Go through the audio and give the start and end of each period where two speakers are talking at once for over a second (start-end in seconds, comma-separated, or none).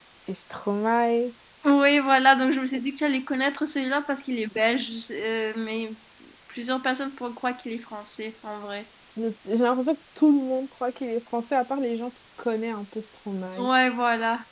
none